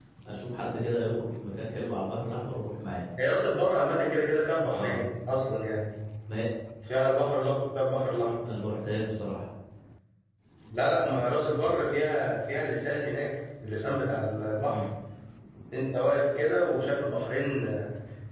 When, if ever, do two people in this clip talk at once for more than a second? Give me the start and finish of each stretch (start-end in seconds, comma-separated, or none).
none